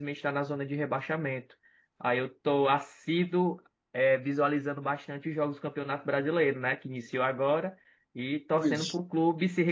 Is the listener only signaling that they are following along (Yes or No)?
Yes